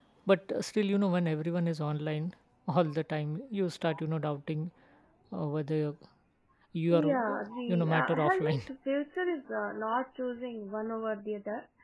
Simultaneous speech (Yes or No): Yes